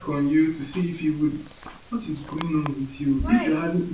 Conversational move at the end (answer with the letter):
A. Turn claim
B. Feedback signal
B